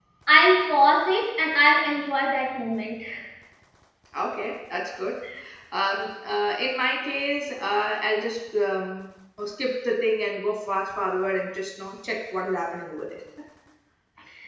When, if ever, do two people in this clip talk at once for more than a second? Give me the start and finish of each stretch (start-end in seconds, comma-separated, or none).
none